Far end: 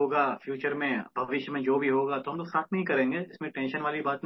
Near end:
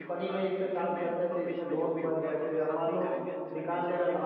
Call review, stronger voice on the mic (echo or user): user